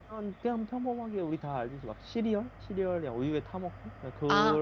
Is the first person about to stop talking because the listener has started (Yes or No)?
Yes